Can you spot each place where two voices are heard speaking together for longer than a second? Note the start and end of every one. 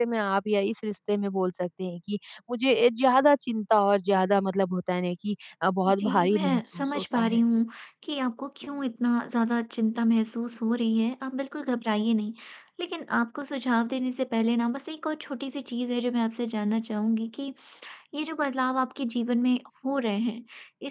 6.0-7.4

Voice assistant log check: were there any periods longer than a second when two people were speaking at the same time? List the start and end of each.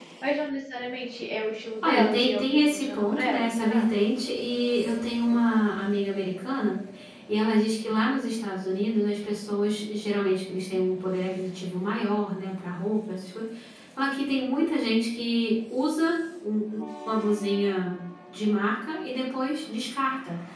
1.8-3.9

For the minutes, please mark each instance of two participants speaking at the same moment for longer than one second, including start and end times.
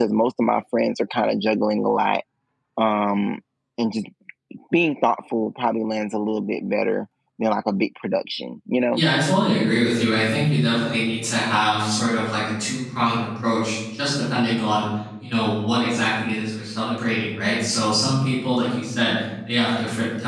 none

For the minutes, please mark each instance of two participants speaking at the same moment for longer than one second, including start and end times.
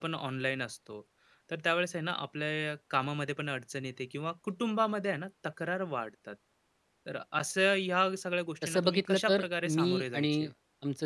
8.6-10.4

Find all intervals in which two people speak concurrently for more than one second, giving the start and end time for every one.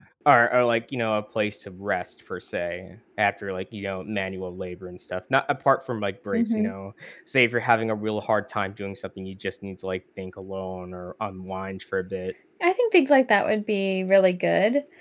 none

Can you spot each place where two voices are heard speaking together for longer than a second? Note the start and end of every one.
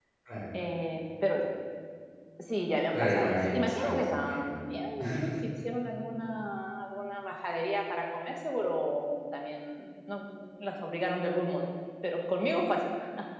2.9-4.6

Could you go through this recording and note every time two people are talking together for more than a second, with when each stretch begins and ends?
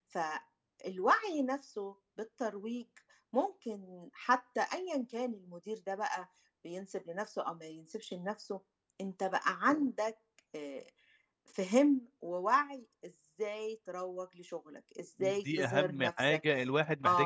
15.2-16.4

